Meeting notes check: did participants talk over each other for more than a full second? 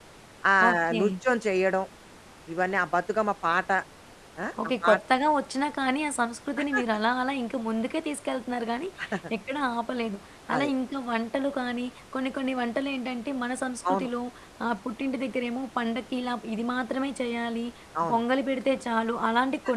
No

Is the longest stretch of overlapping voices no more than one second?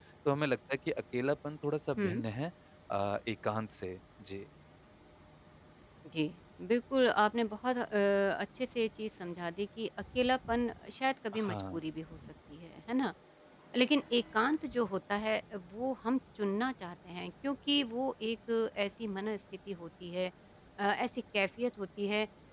Yes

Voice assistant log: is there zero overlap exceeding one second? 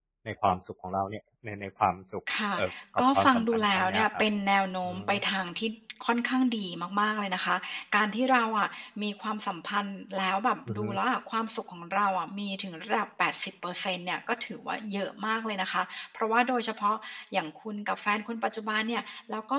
No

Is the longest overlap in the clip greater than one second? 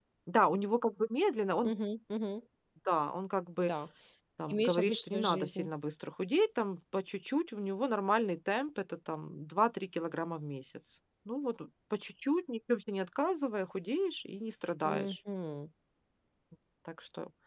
Yes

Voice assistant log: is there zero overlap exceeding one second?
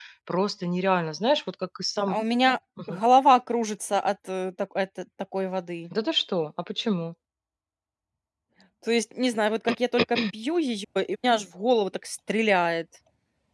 Yes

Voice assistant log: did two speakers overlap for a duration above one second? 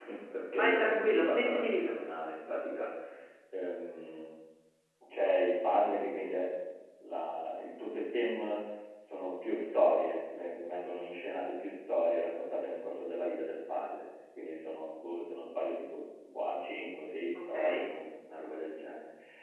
Yes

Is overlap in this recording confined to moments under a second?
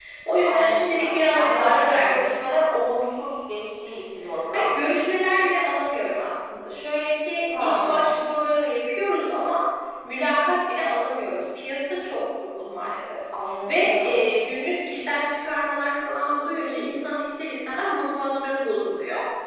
No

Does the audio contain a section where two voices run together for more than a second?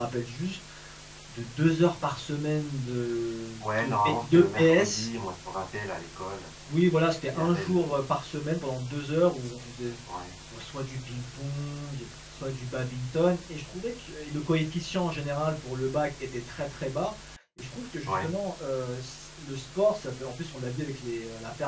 Yes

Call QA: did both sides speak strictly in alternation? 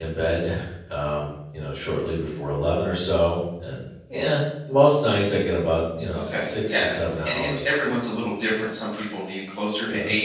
No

